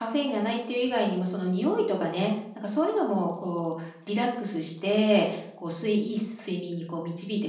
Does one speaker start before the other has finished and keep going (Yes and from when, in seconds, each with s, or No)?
No